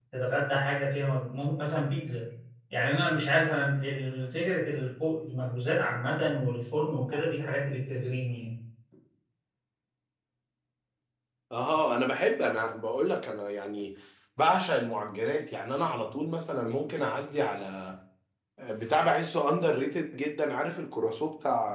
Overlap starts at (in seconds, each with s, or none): none